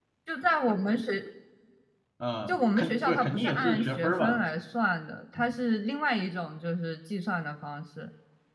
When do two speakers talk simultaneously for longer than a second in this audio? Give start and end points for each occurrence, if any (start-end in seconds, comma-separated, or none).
2.5-4.4